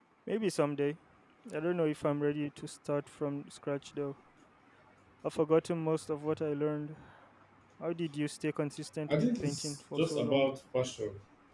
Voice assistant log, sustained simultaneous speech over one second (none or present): present